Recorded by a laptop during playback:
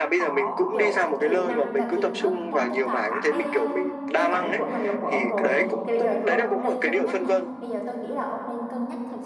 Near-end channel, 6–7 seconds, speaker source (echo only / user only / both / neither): both